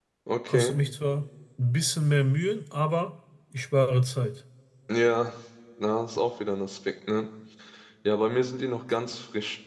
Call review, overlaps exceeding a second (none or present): none